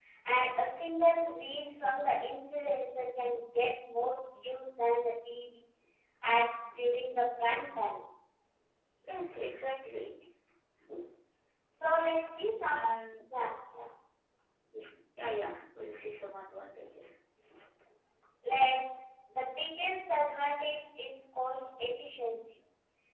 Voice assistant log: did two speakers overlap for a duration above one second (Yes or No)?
No